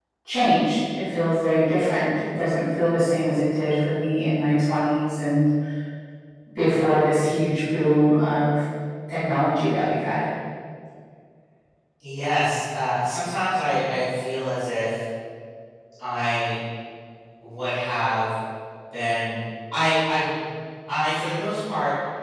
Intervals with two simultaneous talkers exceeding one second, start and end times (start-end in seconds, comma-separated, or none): none